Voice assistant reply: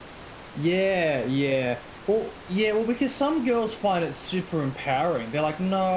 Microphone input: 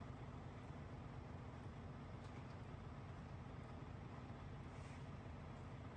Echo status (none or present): none